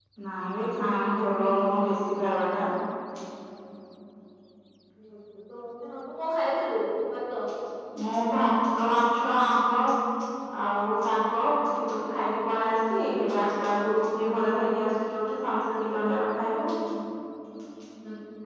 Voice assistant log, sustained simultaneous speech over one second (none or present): none